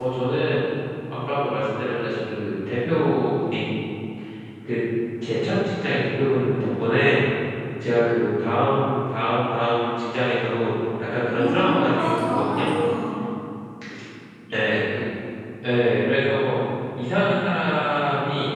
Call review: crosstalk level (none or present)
present